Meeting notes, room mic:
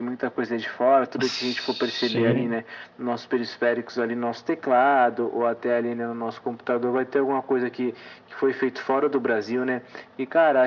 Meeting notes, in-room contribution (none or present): present